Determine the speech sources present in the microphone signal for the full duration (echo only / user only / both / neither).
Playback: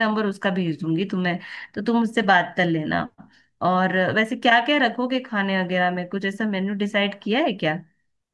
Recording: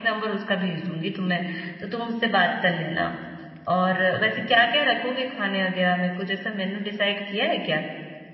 echo only